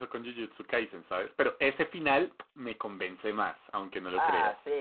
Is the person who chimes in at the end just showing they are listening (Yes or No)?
No